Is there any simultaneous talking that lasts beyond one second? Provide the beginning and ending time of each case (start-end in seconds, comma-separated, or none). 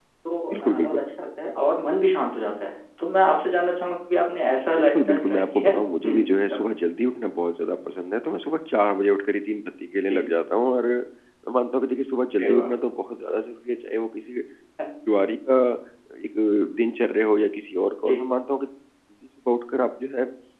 4.8-6.6